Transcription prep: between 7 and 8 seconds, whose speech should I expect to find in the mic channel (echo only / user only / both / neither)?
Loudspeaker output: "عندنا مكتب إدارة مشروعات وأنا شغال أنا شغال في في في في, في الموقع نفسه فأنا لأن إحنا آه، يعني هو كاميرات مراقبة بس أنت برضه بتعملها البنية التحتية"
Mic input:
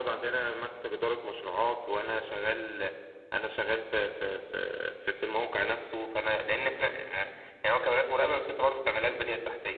echo only